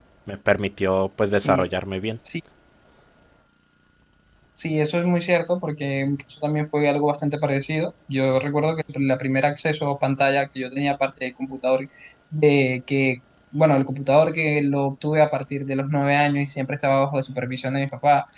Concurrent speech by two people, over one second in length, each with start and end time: none

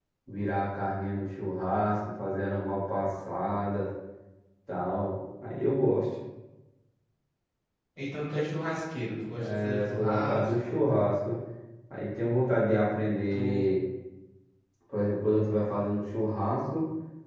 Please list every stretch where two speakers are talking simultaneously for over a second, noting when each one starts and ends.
9.5-10.8

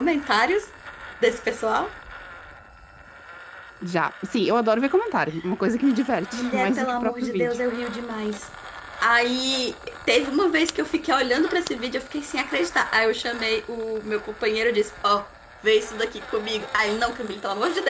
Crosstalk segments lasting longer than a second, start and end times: 6.3-7.5

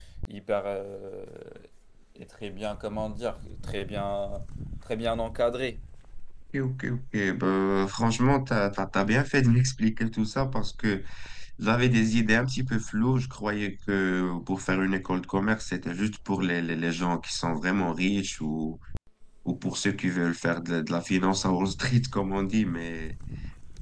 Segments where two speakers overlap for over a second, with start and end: none

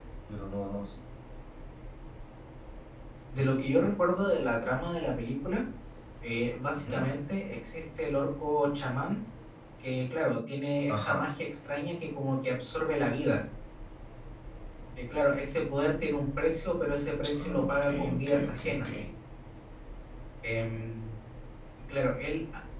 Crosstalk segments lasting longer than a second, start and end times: 17.4-18.9

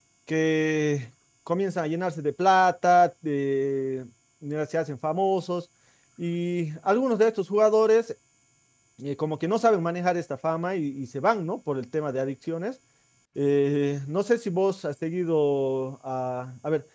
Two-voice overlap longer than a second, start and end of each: none

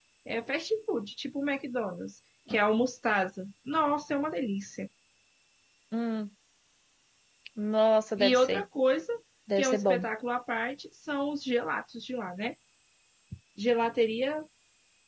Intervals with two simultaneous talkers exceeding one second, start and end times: none

